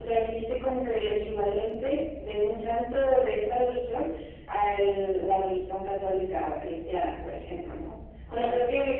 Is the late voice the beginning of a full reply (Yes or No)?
No